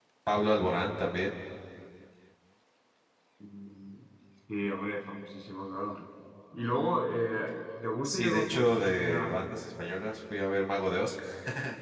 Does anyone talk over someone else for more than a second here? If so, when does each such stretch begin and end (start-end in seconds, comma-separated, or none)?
8.0-9.4